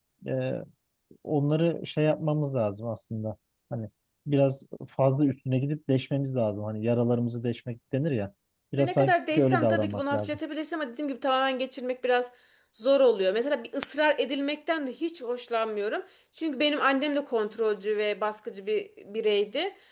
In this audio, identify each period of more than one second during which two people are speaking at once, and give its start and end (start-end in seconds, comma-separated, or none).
8.8-10.4